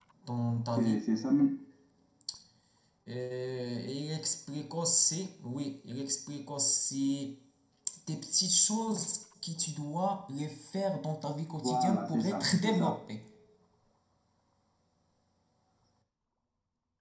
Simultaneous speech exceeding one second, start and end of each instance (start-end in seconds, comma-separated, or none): 11.6-13.0